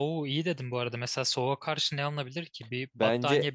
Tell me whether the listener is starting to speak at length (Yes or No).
Yes